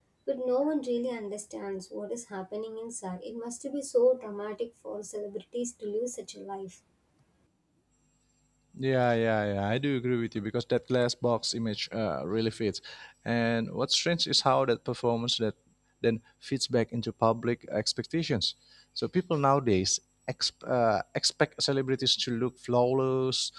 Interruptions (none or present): none